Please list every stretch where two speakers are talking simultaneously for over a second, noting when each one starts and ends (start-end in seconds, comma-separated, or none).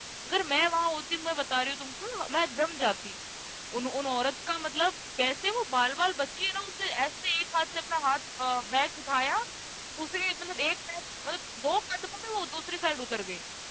none